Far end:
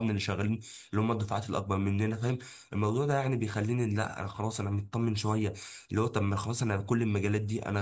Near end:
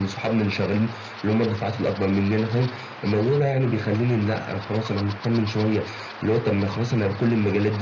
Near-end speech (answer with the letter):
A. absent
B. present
A